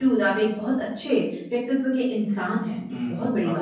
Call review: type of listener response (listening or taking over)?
taking over